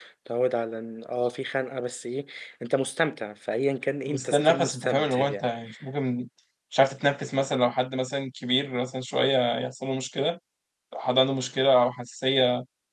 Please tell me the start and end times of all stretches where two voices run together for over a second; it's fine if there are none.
4.1-5.4

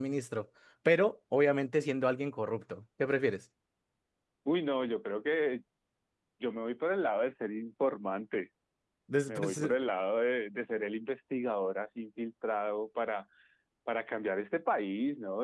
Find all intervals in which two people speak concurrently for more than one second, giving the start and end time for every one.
none

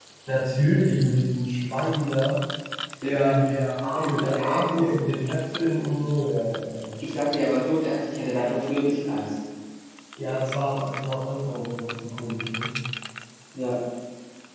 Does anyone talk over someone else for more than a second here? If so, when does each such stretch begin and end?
3.1-4.9

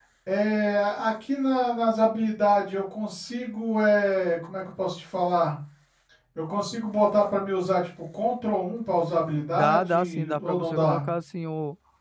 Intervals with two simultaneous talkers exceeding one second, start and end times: 9.5-11.0

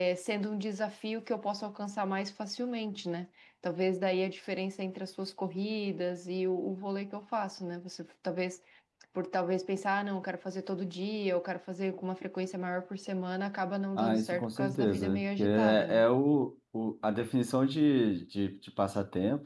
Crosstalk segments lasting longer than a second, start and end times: 14.0-16.0

